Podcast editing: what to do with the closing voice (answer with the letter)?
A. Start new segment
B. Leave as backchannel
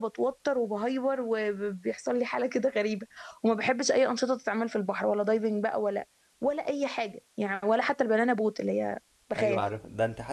A